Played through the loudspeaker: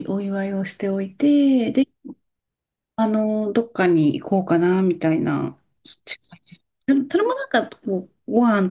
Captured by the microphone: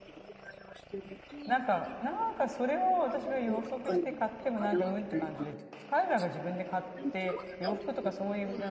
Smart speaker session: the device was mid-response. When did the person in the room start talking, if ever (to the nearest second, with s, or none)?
1 s